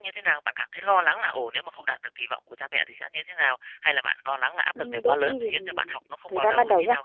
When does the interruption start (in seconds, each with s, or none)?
4.8 s